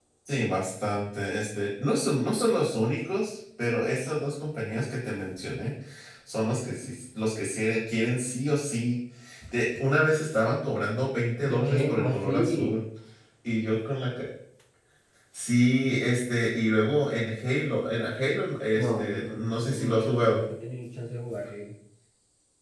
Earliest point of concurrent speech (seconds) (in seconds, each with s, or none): 11.4 s